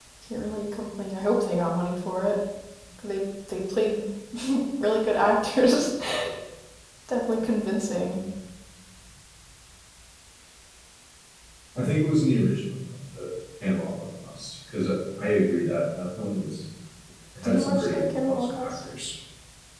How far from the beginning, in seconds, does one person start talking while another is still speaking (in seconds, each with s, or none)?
17.4 s